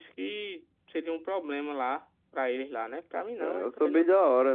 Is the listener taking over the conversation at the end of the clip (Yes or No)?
Yes